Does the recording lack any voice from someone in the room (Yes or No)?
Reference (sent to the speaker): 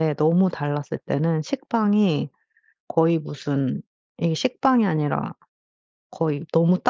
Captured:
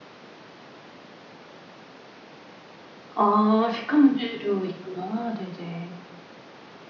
No